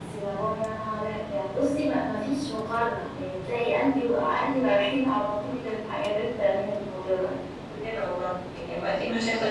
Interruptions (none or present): none